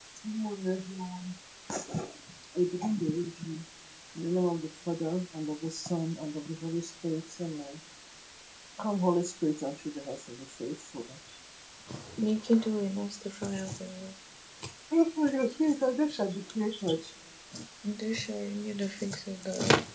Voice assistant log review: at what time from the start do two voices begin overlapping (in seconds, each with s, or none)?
none